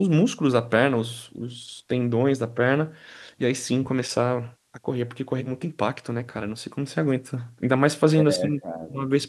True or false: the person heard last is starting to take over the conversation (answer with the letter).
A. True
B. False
B